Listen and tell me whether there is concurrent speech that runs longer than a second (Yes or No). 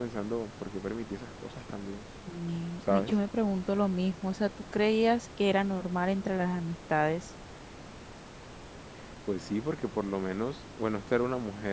No